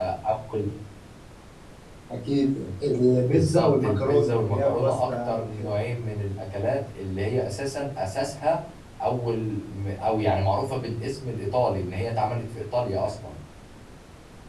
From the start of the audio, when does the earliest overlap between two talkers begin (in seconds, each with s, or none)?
3.3 s